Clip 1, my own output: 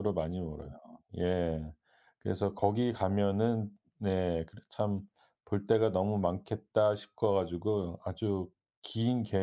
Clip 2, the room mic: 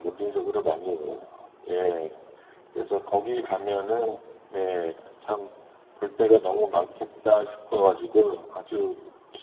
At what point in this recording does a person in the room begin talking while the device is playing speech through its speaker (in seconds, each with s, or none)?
none